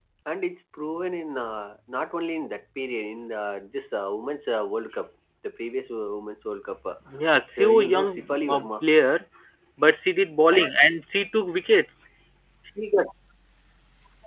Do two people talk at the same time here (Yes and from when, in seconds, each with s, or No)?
Yes, from 7.6 s